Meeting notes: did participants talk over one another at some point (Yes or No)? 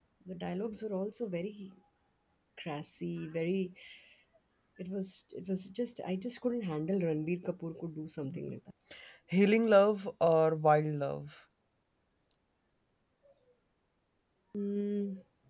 No